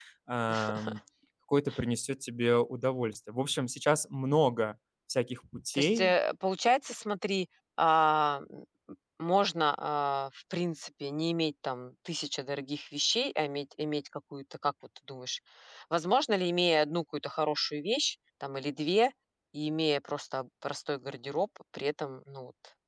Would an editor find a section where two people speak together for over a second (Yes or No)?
No